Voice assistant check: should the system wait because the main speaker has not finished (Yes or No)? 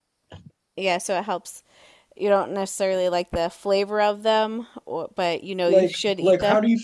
No